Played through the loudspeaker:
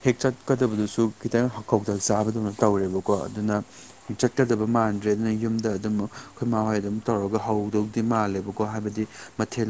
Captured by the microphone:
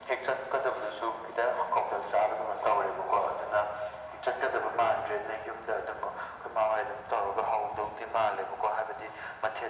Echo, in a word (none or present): present